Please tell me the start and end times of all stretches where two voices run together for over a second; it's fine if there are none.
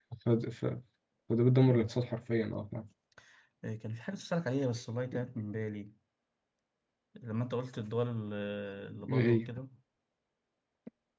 none

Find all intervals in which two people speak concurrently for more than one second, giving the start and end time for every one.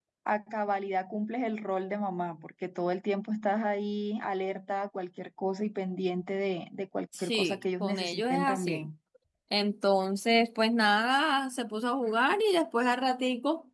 7.2-8.8

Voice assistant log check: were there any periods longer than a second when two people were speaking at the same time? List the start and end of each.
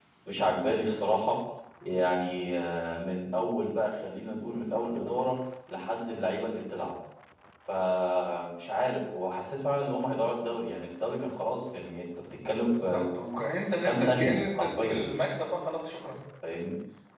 13.8-15.0

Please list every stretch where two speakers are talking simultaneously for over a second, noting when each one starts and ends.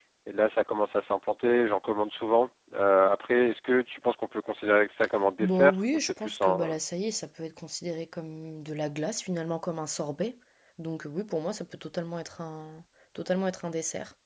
5.4-6.8

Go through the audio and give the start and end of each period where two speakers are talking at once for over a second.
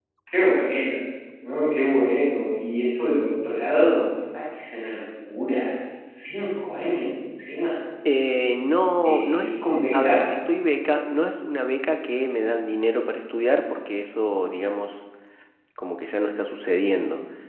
9.0-10.3

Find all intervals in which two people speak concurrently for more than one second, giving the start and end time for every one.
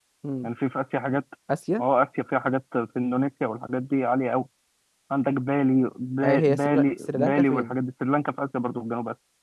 6.2-7.7

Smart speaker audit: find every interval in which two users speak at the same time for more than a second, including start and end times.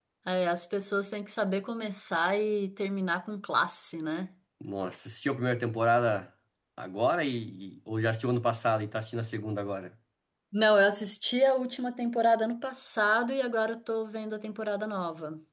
none

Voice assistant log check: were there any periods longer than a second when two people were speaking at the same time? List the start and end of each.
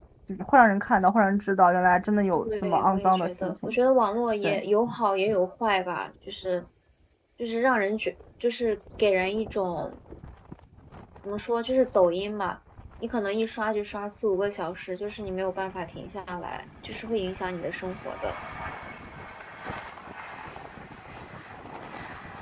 2.4-3.8

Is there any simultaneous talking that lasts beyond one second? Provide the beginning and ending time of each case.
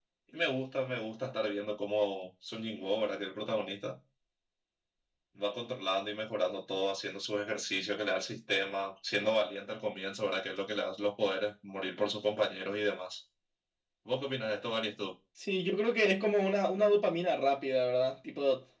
none

